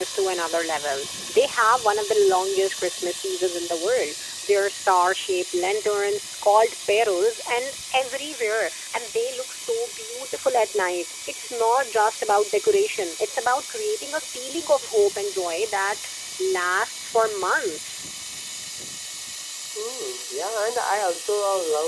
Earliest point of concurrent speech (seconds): none

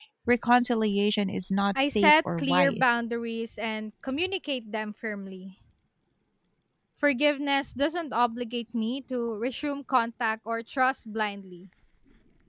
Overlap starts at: 1.8 s

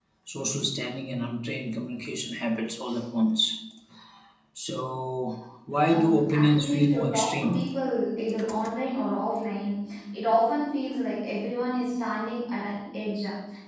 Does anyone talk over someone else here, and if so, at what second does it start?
5.8 s

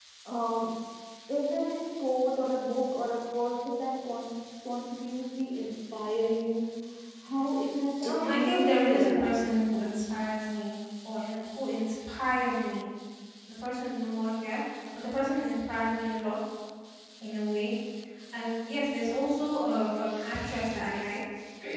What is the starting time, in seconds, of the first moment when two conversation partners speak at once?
8.0 s

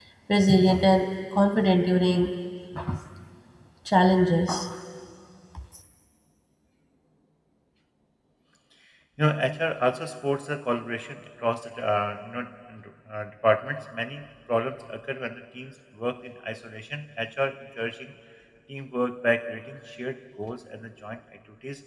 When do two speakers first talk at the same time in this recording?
none

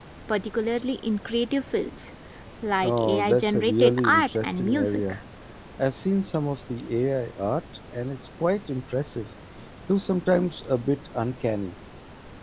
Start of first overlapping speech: 2.8 s

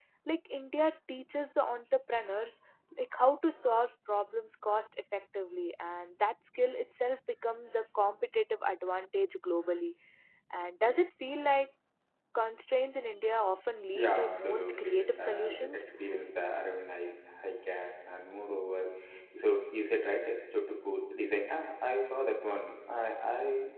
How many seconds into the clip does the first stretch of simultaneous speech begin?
13.9 s

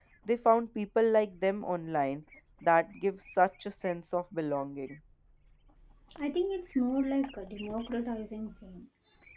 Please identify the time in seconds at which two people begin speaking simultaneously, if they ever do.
none

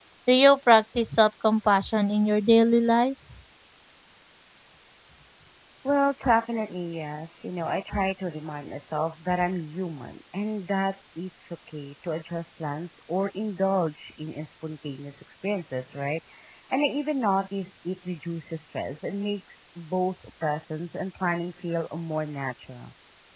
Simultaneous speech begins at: none

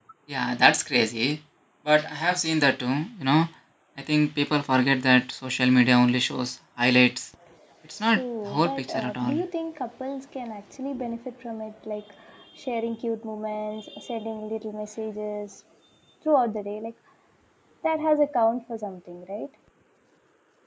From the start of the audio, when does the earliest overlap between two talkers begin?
8.1 s

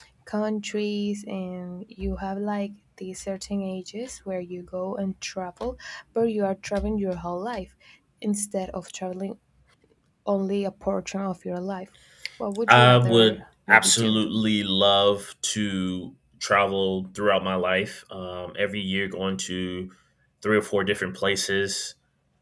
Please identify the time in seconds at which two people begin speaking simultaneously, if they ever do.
12.7 s

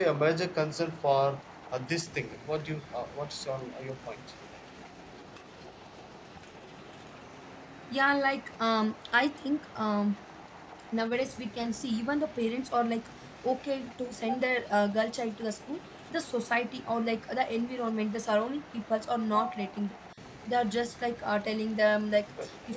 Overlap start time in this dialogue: none

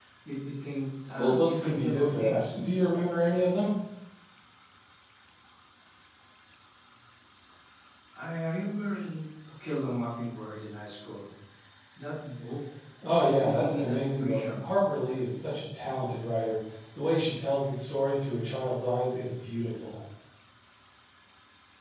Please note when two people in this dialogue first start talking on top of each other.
1.0 s

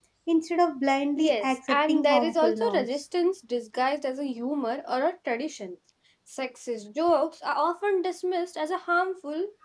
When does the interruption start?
1.2 s

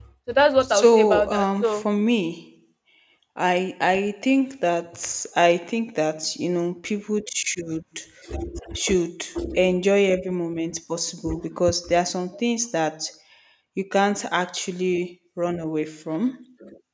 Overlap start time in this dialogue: 0.6 s

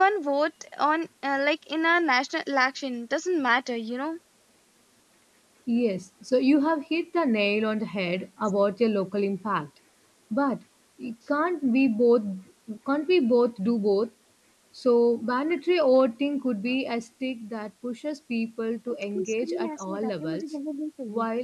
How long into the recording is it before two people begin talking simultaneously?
19.1 s

